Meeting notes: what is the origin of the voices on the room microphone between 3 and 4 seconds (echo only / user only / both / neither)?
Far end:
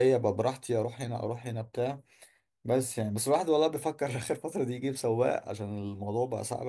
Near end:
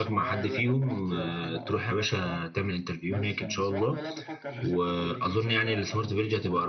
both